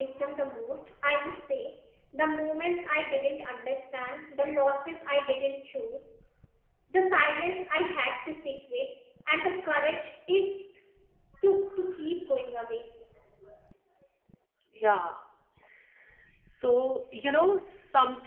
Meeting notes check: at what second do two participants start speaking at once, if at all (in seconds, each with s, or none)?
none